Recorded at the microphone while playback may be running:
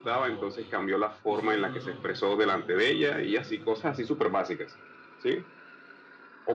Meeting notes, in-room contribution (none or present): present